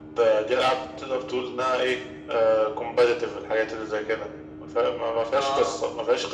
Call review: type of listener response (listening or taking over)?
listening